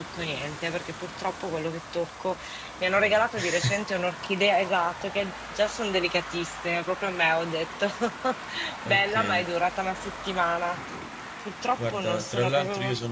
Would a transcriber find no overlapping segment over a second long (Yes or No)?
No